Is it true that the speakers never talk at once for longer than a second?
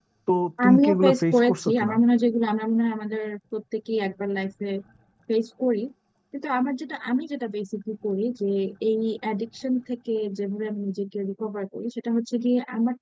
No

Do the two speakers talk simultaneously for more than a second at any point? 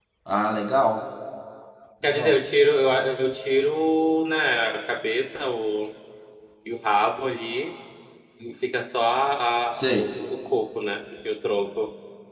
No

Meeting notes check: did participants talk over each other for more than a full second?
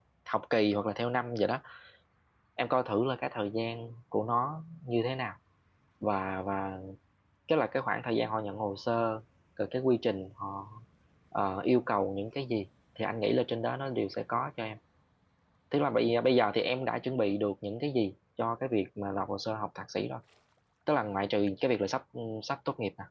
No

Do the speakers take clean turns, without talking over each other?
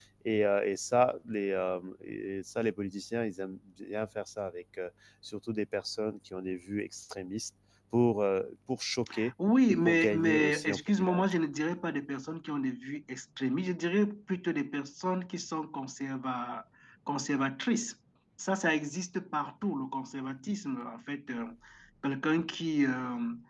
No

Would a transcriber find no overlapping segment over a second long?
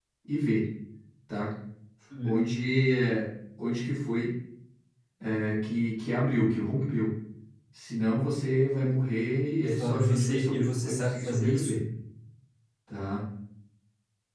No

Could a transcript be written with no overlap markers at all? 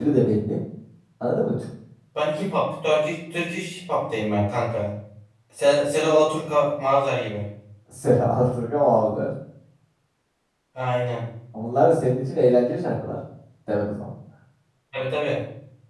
Yes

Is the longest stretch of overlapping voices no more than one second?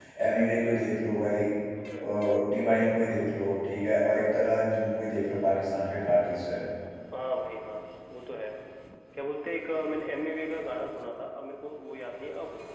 Yes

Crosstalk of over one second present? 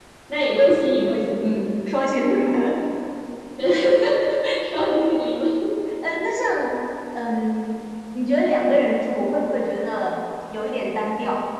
No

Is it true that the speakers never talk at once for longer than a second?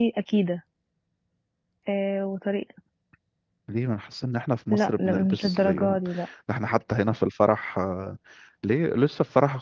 No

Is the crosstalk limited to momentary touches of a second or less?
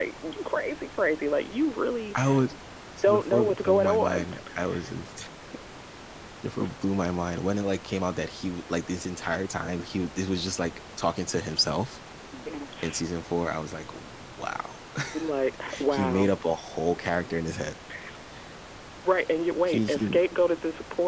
No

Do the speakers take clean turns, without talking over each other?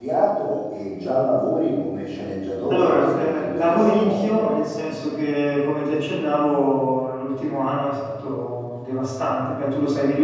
No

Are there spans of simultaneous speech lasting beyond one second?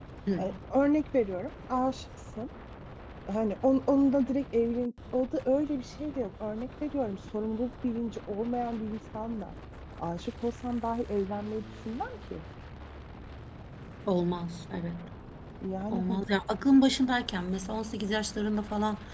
No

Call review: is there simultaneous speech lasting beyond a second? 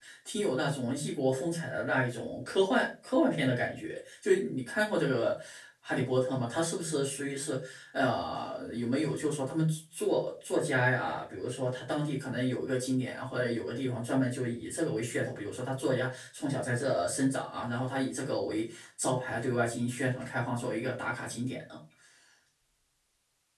No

